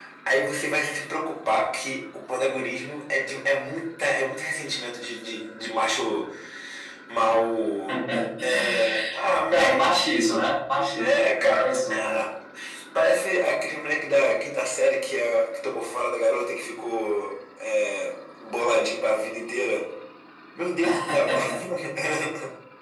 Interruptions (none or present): present